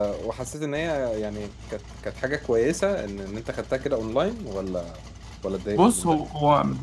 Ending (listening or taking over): taking over